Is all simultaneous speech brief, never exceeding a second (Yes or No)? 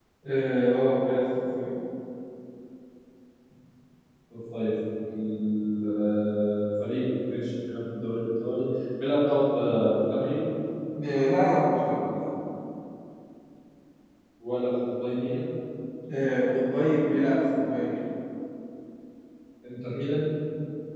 Yes